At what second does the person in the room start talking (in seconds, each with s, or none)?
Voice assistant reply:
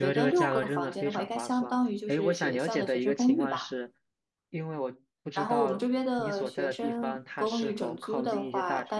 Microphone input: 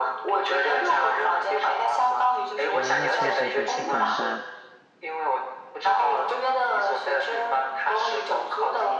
2.7 s